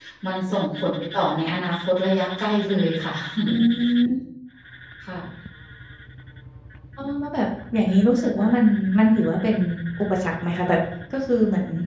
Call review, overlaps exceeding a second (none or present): none